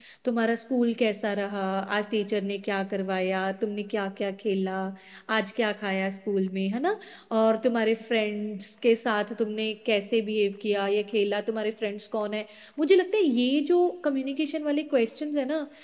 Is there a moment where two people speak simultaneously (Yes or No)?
No